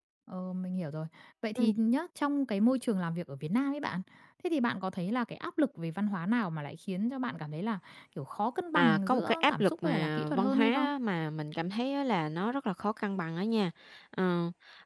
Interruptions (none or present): present